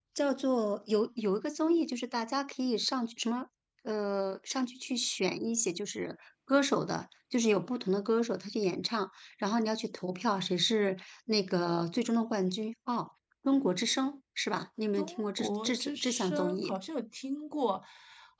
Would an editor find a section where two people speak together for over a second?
Yes, from 14.9 s

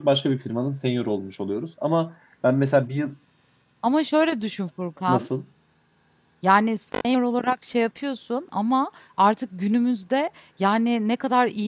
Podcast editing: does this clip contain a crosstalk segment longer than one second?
No

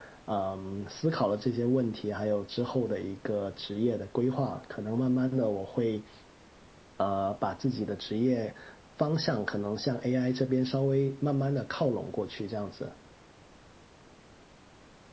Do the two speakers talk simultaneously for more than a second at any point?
No

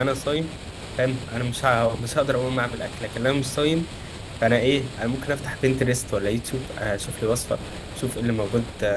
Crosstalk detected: No

